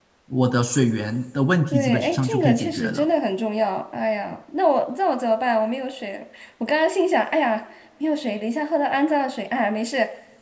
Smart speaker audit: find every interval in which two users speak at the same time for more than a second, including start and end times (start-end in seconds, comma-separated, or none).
1.7-3.0